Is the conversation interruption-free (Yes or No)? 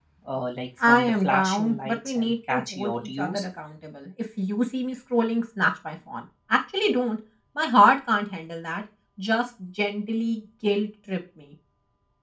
No